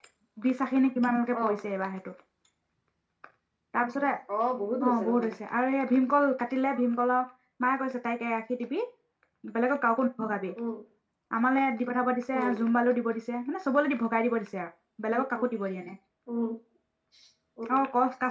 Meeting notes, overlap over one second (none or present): none